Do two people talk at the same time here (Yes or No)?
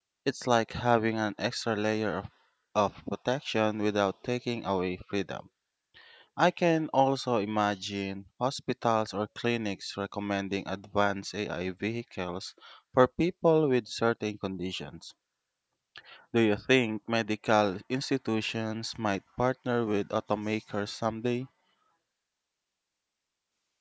No